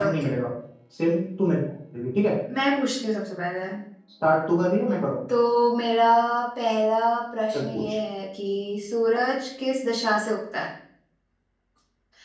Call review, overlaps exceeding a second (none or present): none